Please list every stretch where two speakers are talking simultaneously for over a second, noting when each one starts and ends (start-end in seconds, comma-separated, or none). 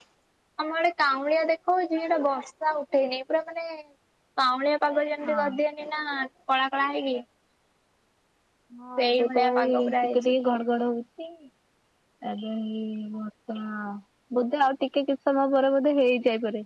9.0-10.3